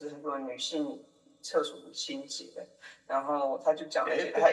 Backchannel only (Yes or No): Yes